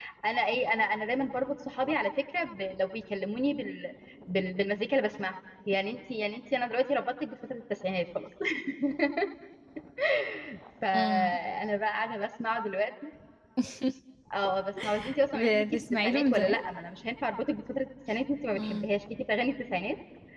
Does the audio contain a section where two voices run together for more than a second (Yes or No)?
Yes